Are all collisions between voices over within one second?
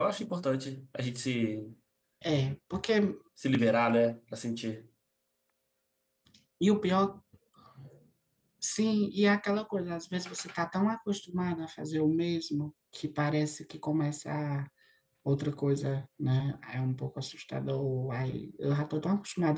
Yes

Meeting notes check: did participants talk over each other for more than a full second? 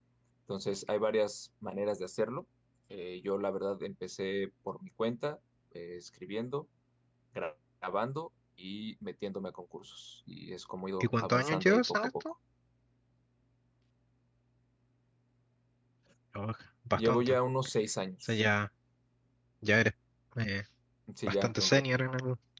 Yes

